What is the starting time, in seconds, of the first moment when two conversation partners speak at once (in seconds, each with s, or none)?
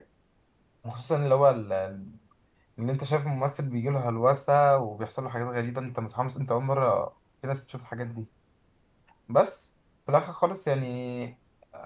none